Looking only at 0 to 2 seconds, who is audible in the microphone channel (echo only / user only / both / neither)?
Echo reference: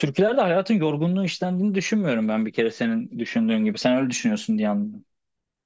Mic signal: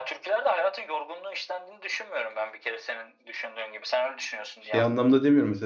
echo only